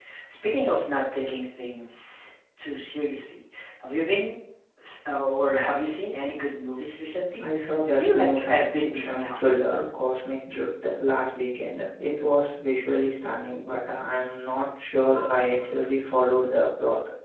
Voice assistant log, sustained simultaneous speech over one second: present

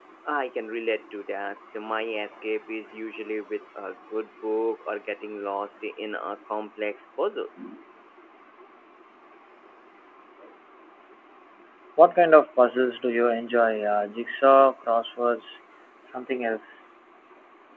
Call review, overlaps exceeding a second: none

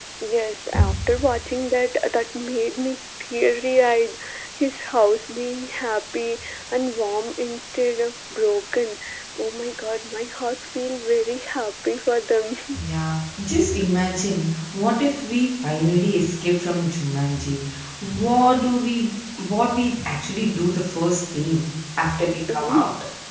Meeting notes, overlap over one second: none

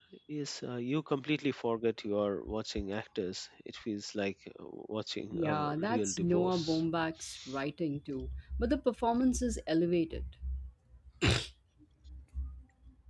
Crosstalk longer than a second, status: present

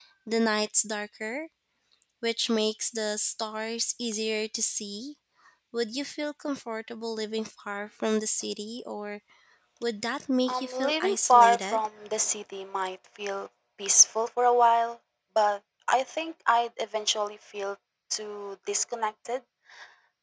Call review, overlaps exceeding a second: present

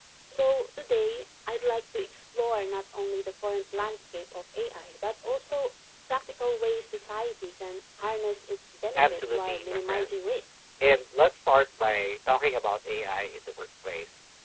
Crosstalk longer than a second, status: present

